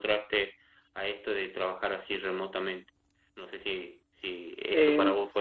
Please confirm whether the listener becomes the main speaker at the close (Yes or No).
No